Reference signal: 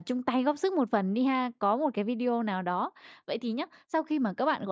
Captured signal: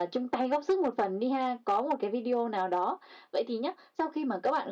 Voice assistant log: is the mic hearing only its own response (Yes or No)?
Yes